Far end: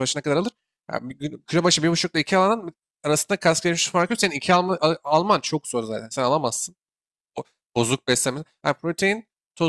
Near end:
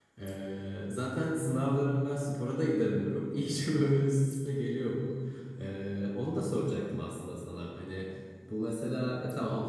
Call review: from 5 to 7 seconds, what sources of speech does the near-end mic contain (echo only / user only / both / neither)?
user only